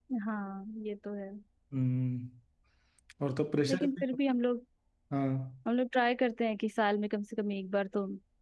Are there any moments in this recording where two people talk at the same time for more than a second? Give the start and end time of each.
none

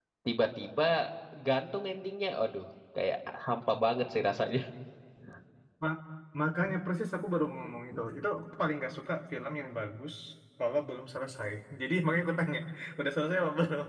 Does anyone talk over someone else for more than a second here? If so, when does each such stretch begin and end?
none

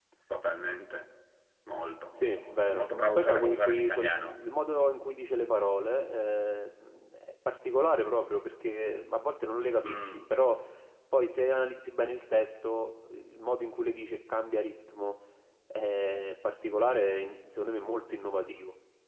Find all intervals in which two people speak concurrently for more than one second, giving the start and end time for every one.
2.1-4.4

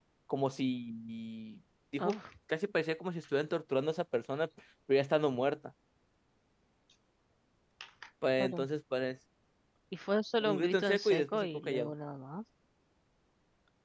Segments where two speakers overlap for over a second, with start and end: 10.4-11.9

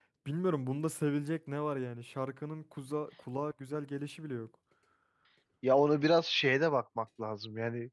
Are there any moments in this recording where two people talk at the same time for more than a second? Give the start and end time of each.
none

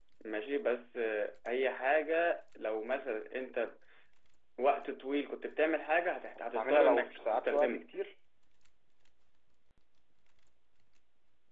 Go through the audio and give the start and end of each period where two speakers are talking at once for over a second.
6.4-7.8

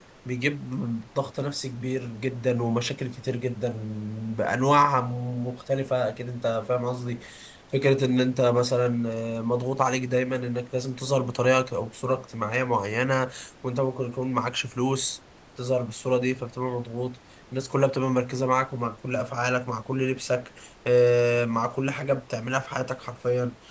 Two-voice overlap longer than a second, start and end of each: none

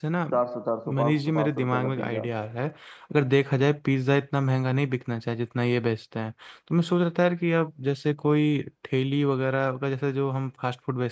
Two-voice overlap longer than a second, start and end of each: 1.0-2.2

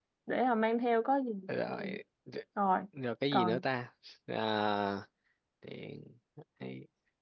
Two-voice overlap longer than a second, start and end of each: none

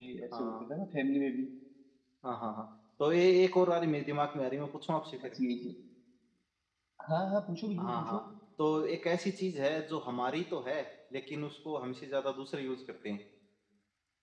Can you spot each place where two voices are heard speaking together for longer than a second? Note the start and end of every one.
none

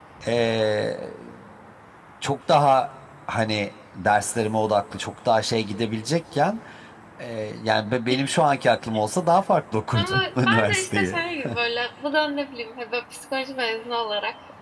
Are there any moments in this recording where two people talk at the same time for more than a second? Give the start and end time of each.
9.9-11.2

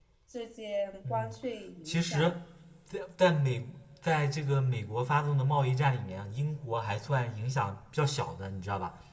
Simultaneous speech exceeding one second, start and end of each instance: none

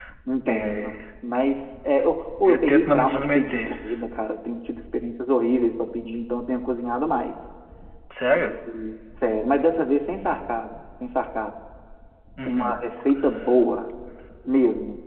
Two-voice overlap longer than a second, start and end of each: 2.5-3.7

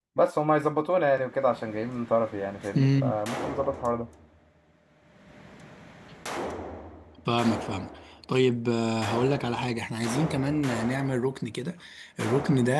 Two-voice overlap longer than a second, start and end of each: none

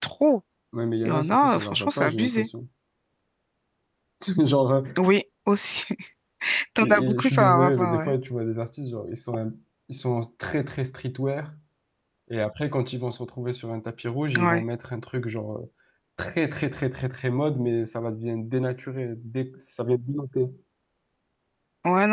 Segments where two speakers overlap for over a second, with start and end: 1.1-2.5, 6.8-8.1

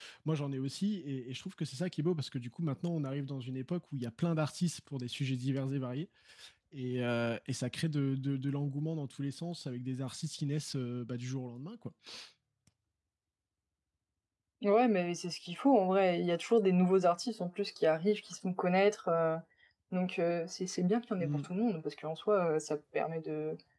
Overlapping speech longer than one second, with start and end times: none

